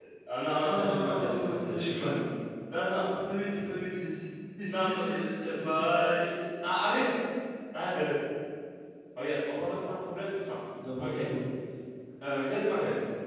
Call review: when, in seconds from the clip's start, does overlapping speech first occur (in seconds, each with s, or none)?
0.6 s